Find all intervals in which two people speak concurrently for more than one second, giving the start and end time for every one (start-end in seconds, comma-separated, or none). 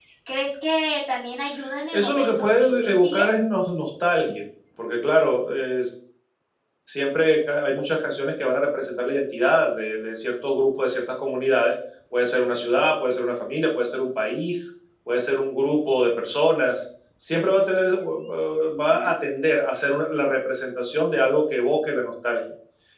1.9-3.2